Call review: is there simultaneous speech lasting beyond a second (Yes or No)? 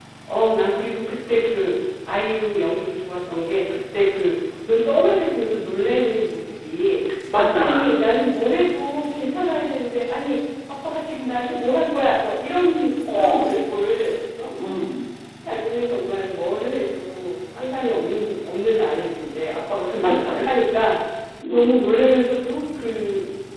No